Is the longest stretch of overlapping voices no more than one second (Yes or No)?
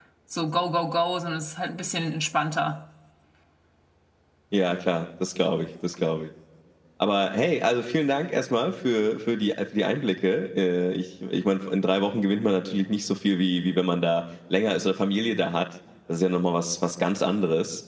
Yes